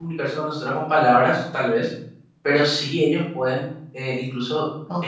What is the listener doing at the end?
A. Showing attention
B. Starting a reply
A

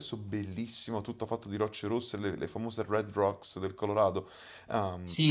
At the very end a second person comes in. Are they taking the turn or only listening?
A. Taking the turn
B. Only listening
A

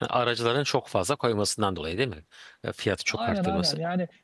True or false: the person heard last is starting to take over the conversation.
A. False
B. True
B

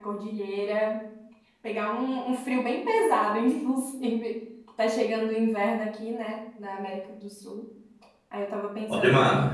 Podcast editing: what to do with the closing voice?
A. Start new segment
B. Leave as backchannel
B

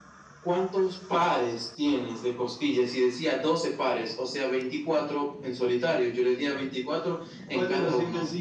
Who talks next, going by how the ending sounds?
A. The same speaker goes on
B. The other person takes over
B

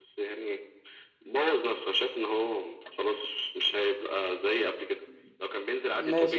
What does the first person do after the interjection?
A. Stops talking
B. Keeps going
A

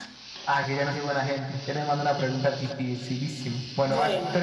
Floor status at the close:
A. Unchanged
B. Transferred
A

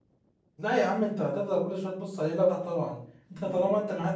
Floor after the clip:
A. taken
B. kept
B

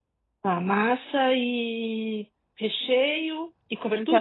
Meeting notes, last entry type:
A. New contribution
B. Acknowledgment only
A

